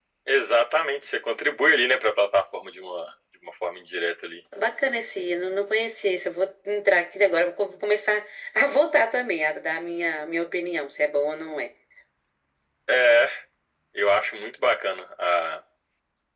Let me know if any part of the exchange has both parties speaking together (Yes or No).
No